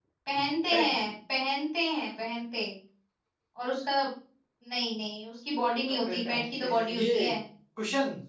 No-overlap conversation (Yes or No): No